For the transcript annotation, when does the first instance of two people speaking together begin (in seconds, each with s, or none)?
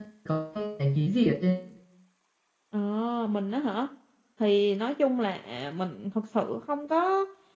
none